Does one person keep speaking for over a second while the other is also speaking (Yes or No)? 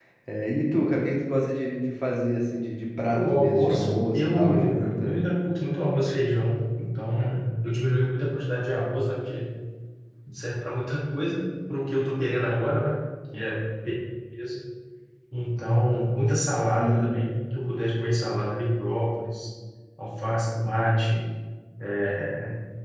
Yes